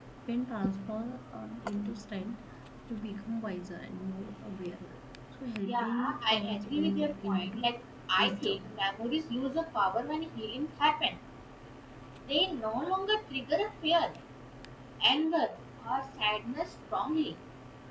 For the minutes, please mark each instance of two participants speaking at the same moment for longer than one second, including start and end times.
5.6-7.7

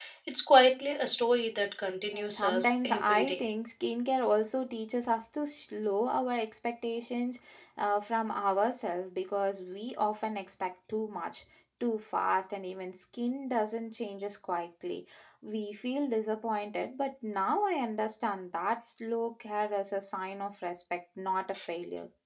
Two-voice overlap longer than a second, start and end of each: 2.1-3.4

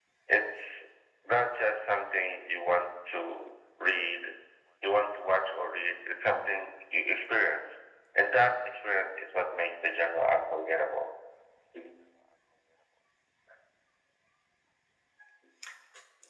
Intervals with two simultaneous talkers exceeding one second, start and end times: none

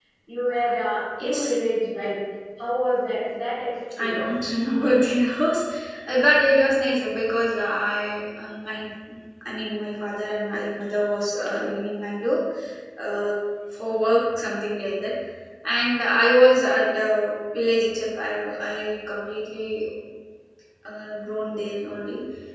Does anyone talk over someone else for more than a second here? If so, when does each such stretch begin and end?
none

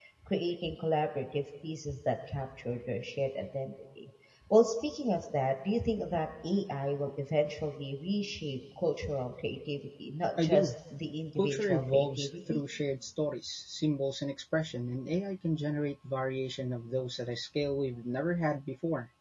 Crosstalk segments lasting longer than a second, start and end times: 11.4-12.6

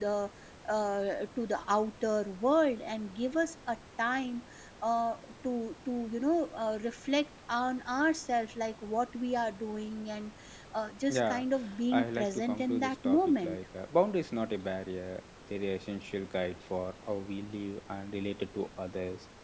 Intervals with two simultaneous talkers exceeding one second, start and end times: 11.9-13.6

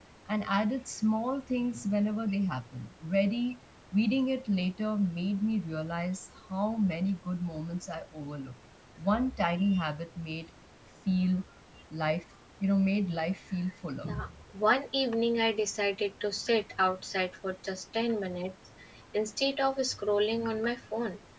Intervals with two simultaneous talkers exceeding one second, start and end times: none

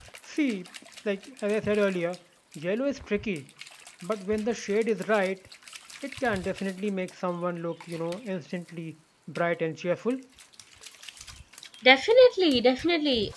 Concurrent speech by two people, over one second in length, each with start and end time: none

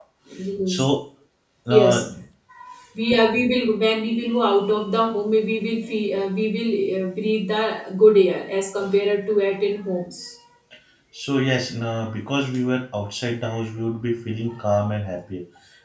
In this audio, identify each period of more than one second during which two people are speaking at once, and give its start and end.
none

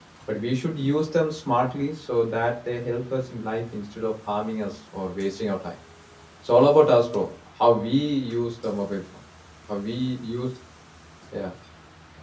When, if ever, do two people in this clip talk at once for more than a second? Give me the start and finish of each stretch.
none

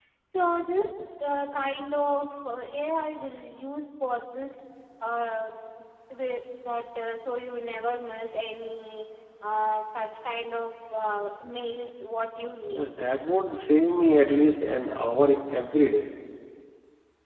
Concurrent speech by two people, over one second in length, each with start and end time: none

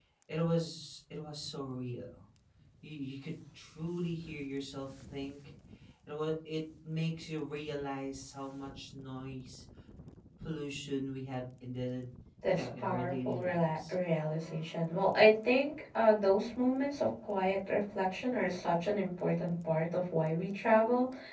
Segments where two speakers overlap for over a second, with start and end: 12.5-13.9

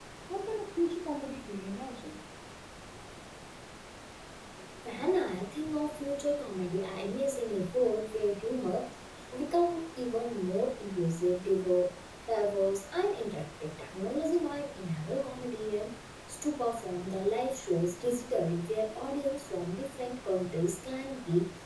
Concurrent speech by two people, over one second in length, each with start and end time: none

